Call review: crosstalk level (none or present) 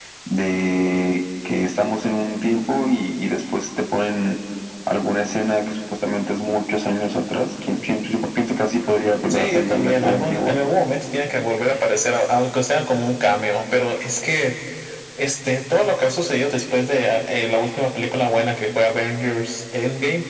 present